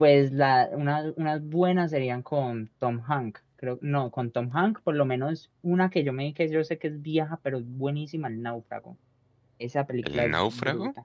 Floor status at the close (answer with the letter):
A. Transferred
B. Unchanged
B